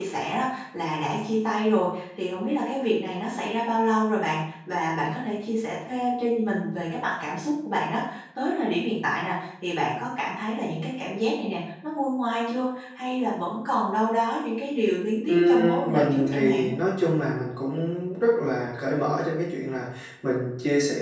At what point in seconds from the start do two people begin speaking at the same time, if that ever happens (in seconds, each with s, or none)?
15.3 s